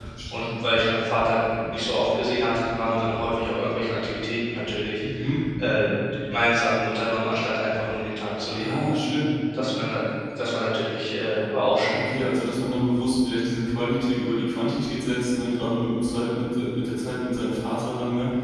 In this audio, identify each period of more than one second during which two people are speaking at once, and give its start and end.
none

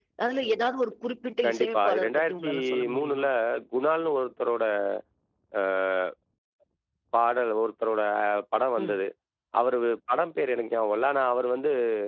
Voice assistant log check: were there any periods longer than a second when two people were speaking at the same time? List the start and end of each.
1.4-3.3

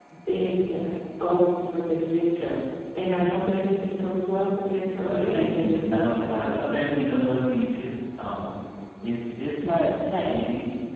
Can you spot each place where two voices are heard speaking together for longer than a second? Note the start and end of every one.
5.0-6.7

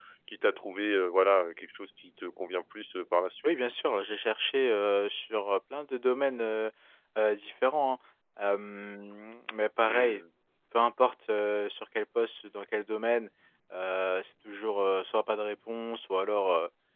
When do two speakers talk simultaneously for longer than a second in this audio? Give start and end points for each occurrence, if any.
none

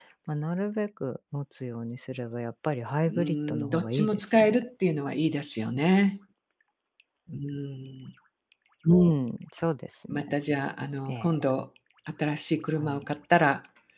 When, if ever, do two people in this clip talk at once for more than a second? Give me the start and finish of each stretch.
3.1-4.6

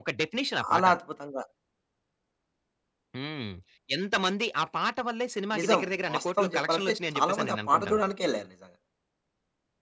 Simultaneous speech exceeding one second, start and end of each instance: 5.6-8.0

